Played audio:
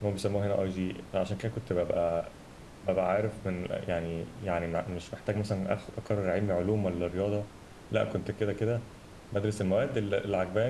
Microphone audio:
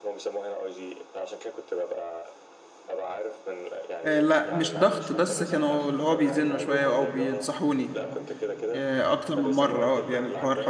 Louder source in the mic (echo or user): user